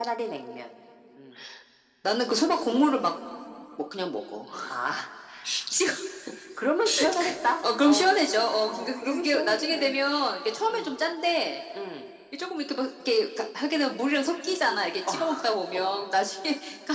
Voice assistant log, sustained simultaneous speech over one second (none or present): present